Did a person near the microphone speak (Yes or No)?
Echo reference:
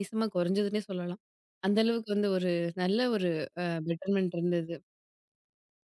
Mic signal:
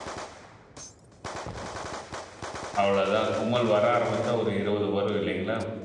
Yes